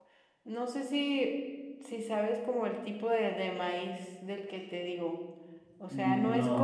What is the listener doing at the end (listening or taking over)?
listening